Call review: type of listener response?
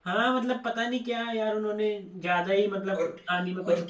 taking over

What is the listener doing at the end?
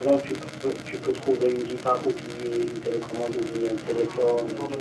taking over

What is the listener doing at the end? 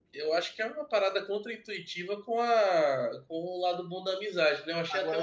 taking over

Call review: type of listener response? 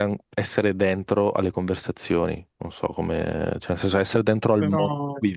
listening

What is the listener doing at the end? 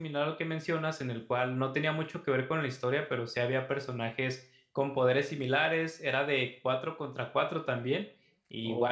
listening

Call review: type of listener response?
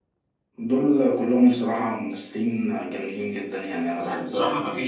taking over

